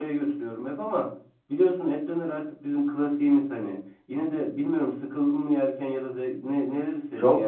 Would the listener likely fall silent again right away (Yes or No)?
No